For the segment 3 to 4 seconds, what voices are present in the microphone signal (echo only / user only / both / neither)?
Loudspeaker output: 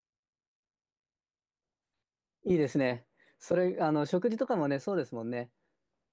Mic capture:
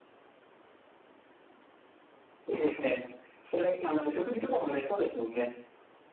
echo only